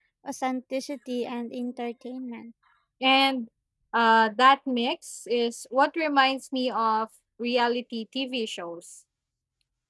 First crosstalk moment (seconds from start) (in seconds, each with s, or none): none